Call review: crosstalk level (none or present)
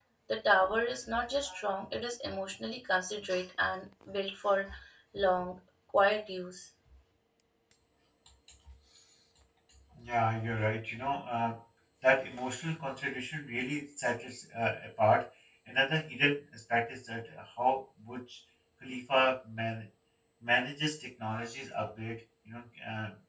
none